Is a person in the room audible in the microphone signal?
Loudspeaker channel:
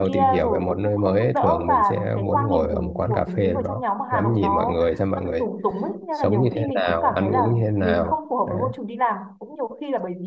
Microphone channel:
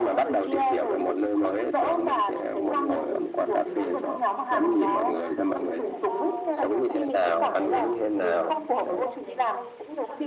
Yes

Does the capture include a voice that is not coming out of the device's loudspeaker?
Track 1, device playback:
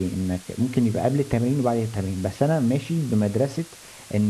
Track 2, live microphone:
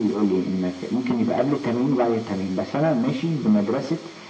No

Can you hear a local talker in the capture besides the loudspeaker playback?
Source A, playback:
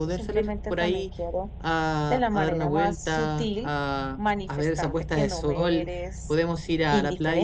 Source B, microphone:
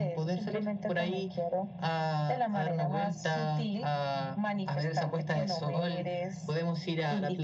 No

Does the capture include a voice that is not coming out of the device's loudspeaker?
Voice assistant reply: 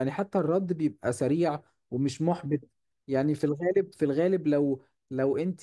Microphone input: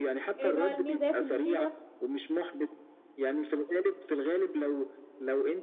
Yes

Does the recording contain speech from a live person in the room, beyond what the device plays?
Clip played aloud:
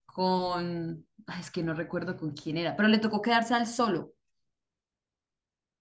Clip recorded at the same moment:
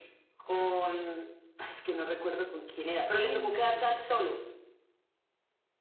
Yes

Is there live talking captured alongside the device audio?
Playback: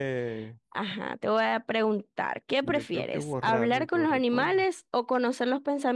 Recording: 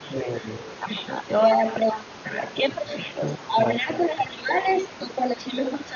No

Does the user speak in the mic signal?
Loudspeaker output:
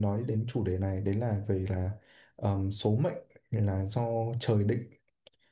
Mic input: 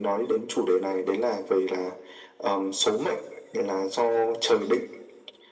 No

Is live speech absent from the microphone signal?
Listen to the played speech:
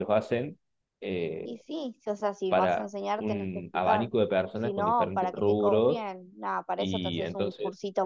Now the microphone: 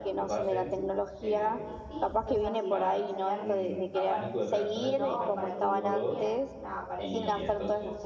No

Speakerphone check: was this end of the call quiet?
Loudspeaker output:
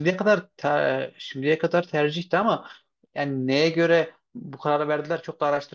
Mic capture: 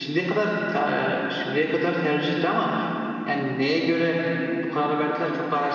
Yes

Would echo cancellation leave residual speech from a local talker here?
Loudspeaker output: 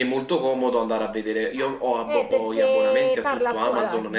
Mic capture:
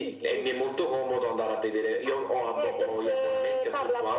No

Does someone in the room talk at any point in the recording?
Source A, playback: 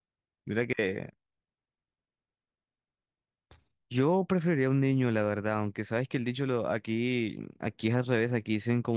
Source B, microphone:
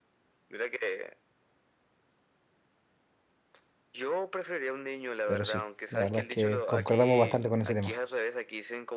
Yes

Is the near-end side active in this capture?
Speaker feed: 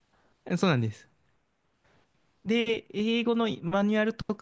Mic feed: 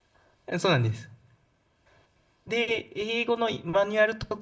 No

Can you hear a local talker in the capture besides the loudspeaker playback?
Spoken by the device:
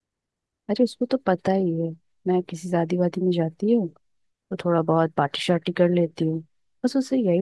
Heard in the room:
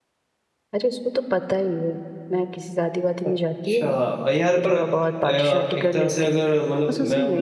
Yes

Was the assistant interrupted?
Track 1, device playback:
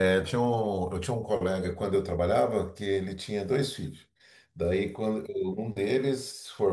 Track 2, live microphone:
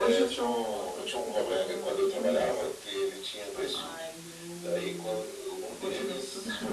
Yes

